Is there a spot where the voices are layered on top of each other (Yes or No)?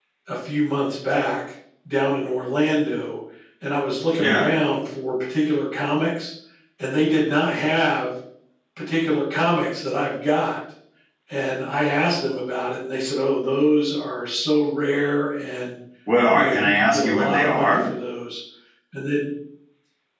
Yes